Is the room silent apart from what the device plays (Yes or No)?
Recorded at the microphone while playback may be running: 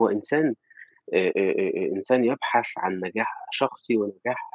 No